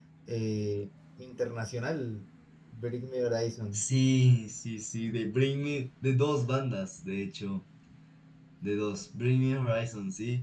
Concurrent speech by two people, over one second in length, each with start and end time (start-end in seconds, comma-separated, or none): none